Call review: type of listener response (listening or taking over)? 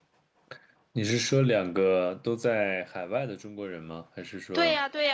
taking over